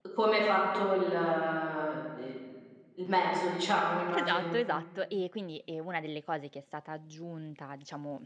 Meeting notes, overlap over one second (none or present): none